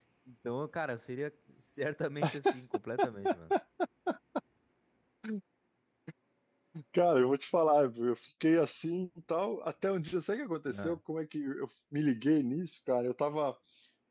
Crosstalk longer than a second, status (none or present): none